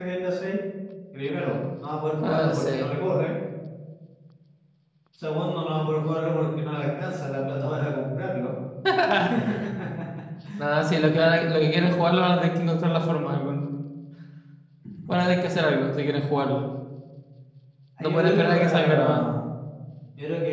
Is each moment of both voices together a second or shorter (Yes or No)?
No